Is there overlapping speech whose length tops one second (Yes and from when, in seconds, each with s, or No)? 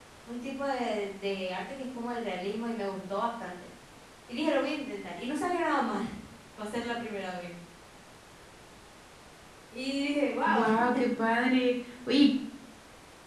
No